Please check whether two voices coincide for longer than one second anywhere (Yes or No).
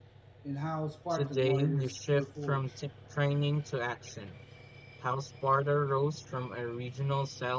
Yes